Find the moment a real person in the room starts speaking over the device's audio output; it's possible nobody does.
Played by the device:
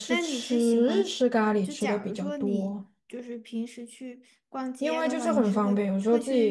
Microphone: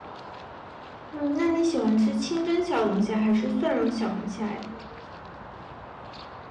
1.1 s

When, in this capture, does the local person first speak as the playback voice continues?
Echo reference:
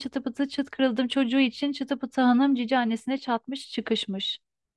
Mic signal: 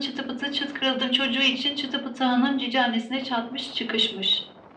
none

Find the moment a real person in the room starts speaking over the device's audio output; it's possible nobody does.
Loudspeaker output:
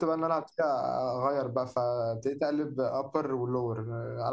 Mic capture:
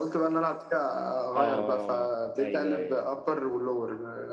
1.3 s

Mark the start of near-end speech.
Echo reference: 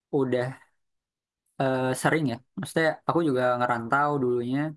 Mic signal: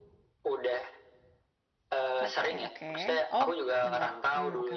2.2 s

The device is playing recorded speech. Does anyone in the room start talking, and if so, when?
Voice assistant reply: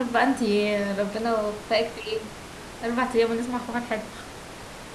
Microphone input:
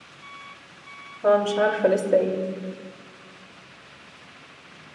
1.2 s

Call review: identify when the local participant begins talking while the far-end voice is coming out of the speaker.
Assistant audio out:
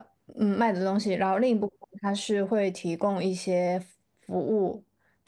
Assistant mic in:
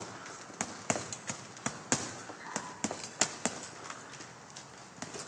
none

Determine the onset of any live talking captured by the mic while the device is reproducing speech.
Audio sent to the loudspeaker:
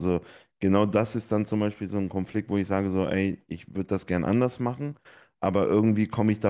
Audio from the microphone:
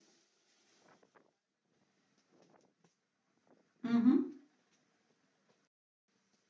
3.8 s

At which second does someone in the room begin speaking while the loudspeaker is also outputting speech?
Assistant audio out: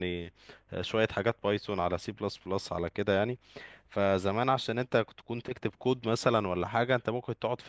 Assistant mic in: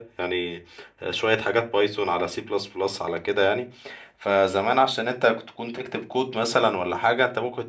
none

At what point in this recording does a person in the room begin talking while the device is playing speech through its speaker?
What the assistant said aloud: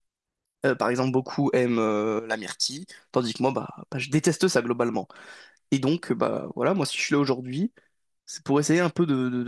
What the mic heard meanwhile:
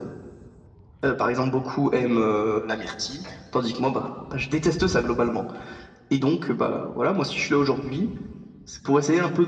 none

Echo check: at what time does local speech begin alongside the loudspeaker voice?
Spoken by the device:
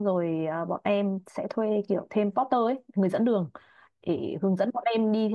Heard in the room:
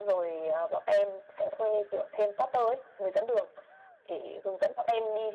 none

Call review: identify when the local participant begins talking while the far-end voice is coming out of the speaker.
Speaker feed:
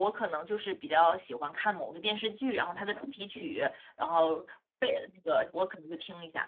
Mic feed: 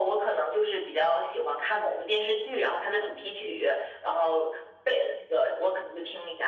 none

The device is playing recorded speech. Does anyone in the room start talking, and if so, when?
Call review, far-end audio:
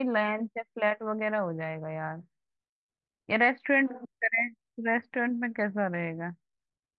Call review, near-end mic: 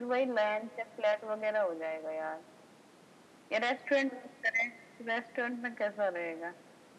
none

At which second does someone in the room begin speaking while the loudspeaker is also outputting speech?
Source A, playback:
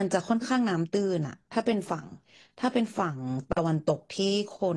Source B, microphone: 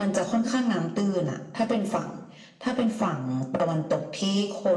none

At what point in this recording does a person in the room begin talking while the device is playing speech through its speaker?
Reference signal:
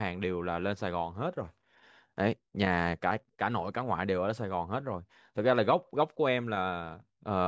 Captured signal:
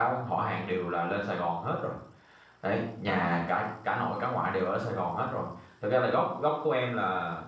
3.0 s

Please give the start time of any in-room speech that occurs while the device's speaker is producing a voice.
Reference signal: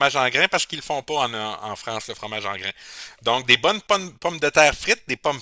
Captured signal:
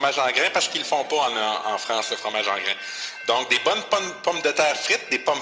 none

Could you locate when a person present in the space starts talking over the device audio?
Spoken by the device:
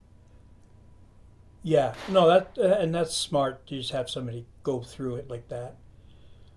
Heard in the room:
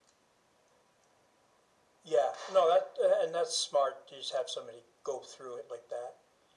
none

